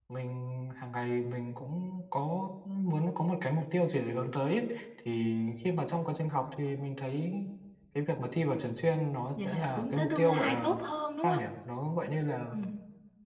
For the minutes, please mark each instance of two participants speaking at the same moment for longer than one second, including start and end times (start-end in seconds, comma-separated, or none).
9.4-10.8